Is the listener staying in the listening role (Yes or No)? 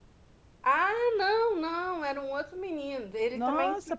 No